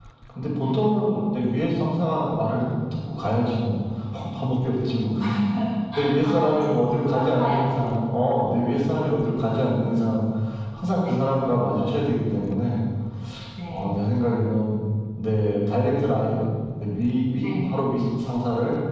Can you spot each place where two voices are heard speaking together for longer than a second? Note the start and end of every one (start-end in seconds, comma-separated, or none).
6.2-7.6